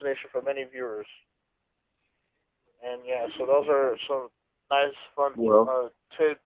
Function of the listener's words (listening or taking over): listening